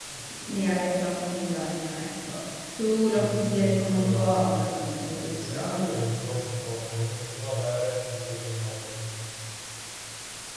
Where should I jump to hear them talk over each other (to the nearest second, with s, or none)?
3 s